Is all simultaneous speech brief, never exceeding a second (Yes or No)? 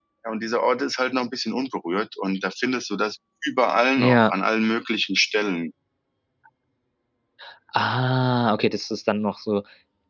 Yes